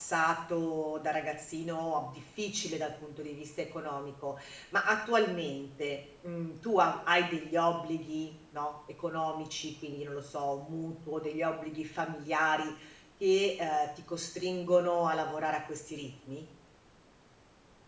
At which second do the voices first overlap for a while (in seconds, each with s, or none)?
none